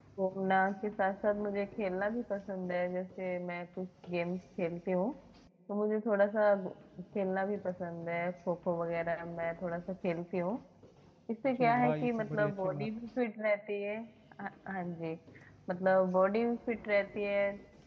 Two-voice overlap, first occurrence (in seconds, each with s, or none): 11.6 s